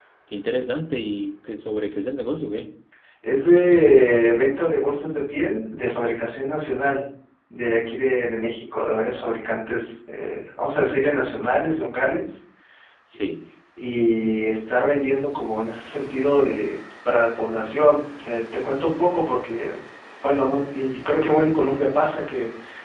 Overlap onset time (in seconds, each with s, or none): none